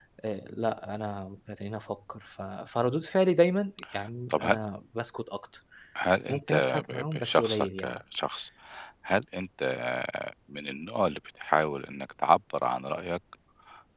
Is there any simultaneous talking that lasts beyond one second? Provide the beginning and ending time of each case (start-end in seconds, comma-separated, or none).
6.3-8.0